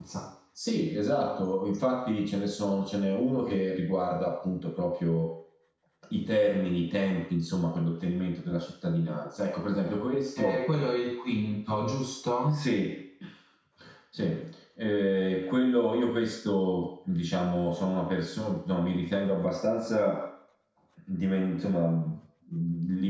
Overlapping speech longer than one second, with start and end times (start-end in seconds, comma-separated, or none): none